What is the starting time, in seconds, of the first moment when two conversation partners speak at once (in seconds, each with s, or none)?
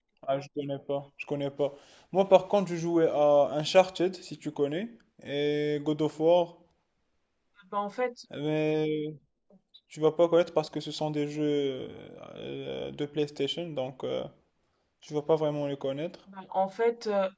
none